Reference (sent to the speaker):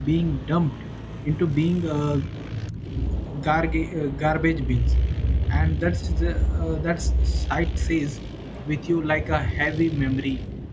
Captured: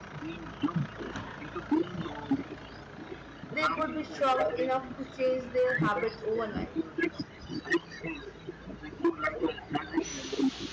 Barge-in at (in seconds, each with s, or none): 3.5 s